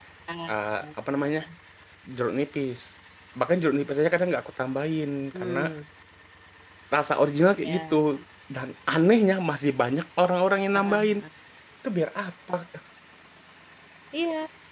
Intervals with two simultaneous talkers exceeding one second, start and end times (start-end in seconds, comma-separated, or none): none